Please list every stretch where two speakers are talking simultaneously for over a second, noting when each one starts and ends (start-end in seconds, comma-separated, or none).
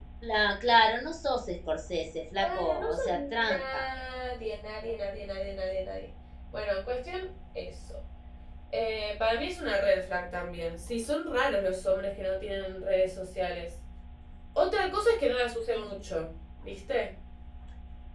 2.4-3.8